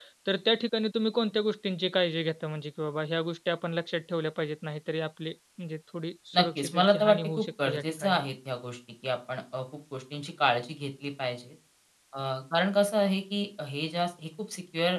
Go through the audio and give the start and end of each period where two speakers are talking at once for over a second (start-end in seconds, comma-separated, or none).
6.3-8.2